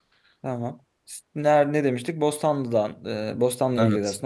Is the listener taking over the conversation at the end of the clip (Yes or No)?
No